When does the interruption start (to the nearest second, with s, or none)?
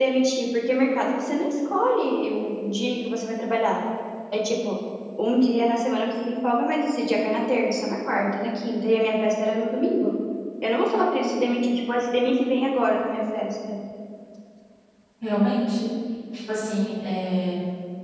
none